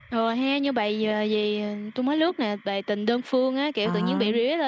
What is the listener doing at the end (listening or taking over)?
listening